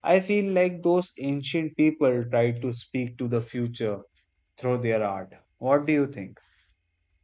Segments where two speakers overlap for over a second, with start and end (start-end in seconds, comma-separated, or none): none